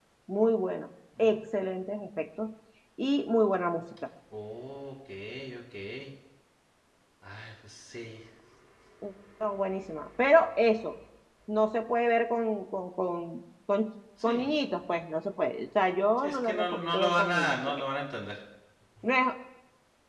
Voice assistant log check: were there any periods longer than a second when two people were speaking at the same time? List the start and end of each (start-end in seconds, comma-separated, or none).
16.2-17.9